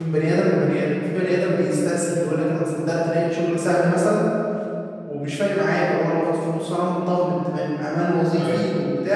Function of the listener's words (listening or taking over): listening